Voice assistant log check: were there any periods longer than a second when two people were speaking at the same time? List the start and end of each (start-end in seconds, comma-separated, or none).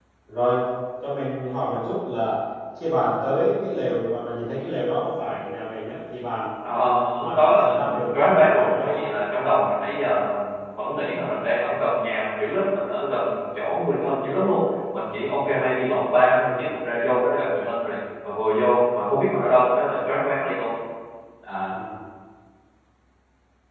7.2-9.1